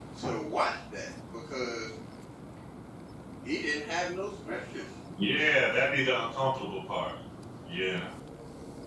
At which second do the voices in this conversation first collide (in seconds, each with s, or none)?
none